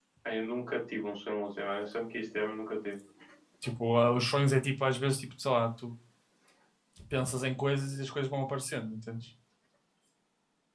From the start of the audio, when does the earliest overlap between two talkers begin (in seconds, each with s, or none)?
none